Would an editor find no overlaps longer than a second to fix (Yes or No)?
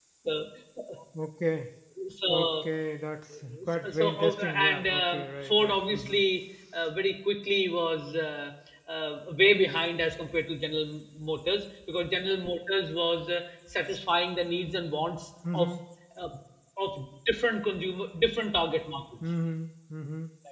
No